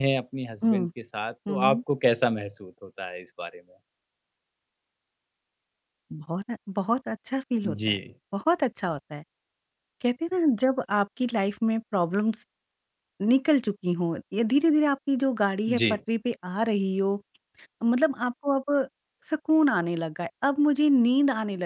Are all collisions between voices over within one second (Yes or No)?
Yes